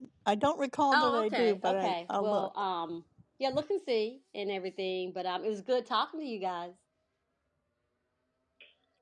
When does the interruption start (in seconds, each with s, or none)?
0.9 s